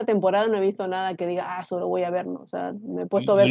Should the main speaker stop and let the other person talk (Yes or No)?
Yes